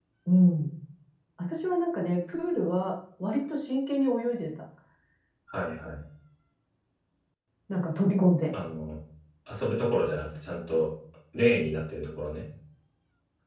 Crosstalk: none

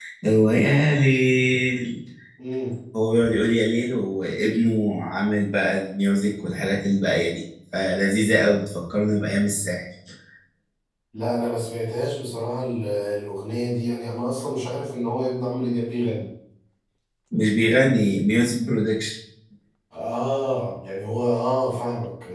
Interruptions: none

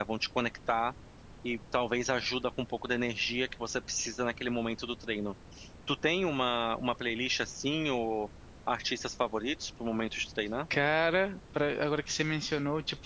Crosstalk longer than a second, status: none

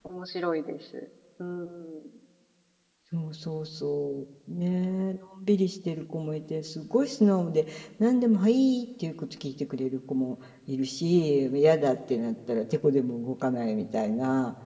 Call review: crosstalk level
none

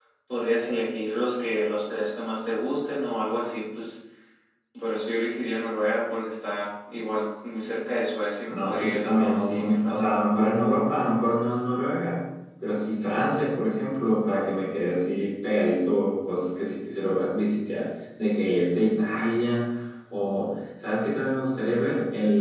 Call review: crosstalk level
present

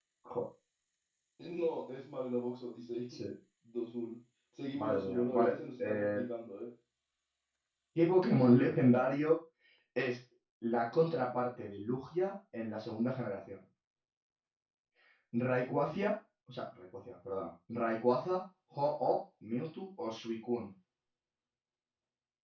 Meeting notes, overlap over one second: present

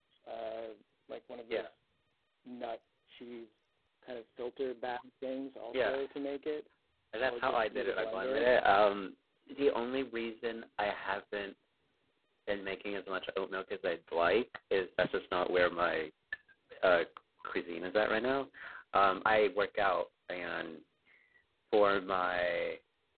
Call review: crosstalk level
present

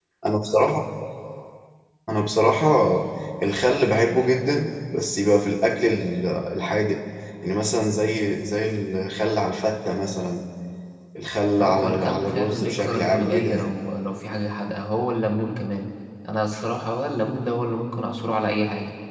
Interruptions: present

